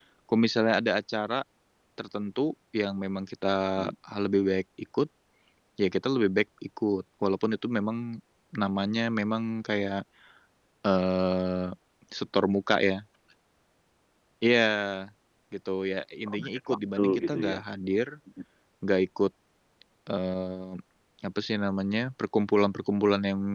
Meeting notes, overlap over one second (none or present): present